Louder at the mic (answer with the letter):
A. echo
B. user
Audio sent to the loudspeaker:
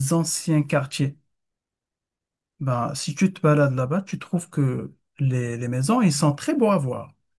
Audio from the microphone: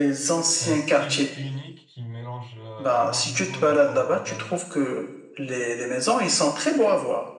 A